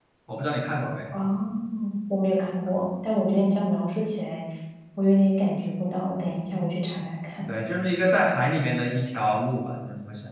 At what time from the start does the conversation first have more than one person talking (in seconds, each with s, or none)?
none